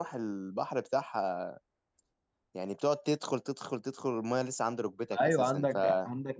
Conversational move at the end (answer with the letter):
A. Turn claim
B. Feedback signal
A